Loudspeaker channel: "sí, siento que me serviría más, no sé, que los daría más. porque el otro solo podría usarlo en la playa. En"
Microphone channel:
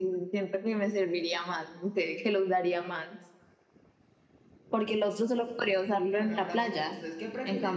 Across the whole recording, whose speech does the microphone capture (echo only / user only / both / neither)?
both